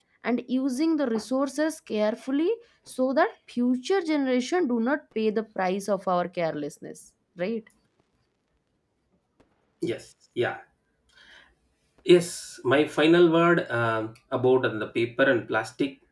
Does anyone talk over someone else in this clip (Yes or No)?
No